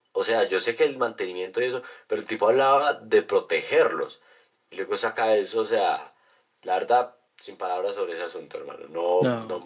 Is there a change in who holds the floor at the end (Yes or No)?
No